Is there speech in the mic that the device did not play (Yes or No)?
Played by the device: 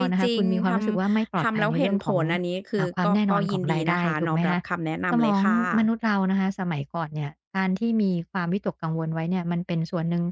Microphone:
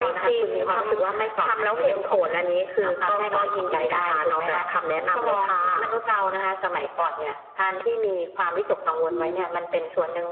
Yes